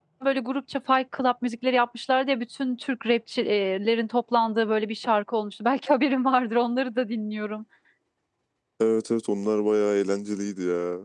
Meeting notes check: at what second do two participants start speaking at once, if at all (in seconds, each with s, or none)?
none